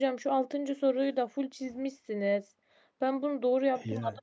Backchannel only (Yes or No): Yes